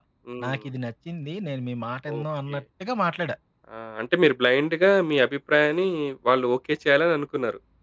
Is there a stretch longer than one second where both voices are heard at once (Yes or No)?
No